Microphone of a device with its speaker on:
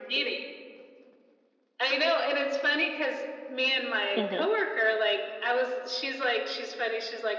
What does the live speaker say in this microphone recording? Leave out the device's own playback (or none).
Mhm.